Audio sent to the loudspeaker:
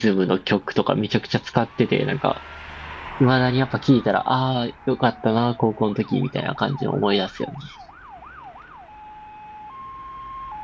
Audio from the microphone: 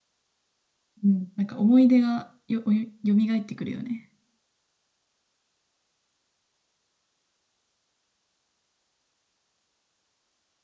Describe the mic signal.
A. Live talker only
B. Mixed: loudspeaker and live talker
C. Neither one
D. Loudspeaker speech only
A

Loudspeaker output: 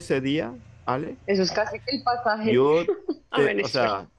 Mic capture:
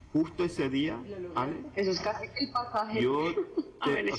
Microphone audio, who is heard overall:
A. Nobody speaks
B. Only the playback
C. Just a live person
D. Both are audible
D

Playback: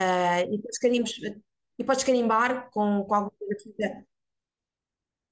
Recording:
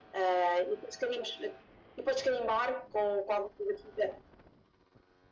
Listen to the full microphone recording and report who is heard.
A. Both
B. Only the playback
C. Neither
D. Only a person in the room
B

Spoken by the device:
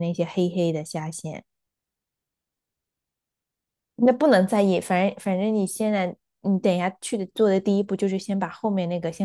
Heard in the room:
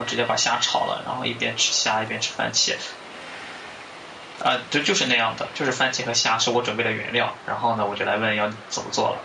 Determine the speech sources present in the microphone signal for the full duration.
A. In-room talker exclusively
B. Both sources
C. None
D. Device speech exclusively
A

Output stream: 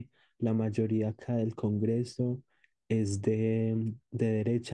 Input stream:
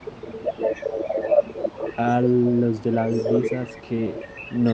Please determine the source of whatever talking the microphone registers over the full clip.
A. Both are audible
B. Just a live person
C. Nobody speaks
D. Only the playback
A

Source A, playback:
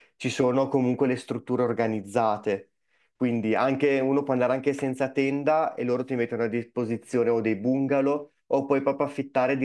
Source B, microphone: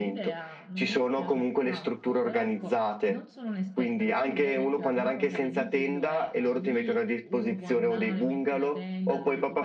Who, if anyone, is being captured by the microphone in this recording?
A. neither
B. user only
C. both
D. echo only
C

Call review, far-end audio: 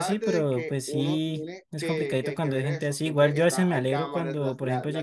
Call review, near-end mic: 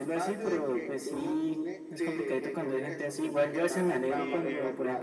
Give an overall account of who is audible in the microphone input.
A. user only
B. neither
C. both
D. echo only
C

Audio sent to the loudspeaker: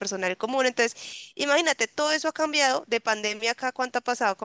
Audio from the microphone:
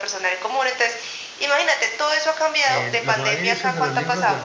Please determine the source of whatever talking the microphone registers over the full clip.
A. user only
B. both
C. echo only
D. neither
B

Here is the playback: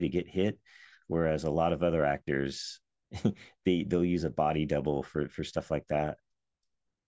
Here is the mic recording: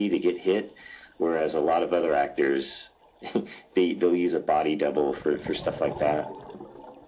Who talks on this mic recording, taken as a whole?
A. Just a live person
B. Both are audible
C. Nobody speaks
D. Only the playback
D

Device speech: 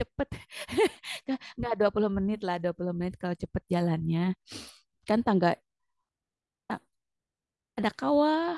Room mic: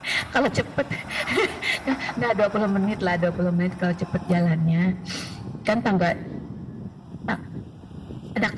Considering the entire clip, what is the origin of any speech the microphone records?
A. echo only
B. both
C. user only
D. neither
A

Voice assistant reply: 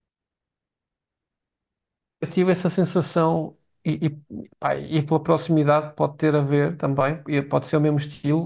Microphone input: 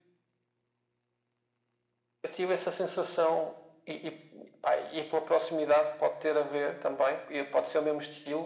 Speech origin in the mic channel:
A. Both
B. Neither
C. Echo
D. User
C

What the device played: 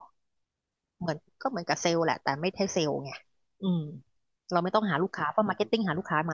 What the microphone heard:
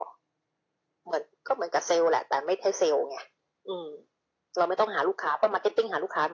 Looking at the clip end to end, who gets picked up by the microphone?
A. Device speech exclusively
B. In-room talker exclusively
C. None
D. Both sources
A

